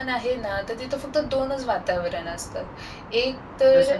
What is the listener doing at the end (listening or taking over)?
listening